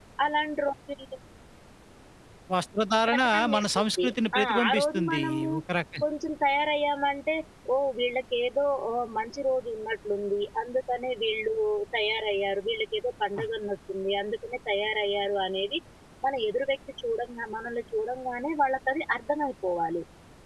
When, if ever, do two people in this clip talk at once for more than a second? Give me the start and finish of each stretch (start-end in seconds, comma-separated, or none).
3.1-5.5